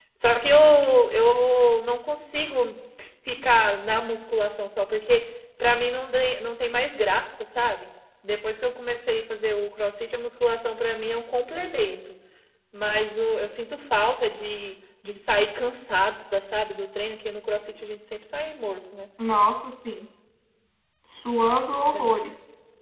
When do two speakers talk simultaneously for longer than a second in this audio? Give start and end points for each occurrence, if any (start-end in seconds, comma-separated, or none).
none